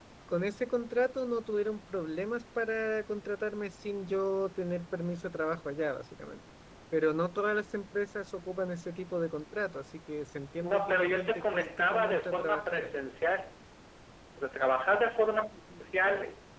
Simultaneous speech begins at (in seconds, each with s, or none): 10.6 s